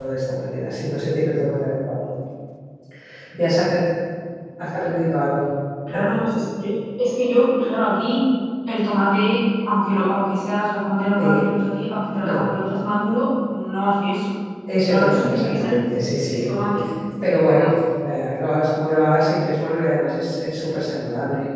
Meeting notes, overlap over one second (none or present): present